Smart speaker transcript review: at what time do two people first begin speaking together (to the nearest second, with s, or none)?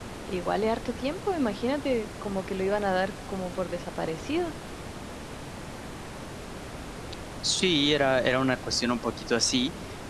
none